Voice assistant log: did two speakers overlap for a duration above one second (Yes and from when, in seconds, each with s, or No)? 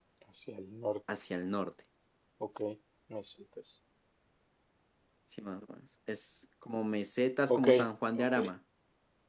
No